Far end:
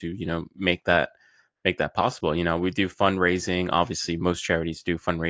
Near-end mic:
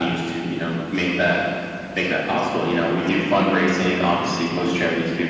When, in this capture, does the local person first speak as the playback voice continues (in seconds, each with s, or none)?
none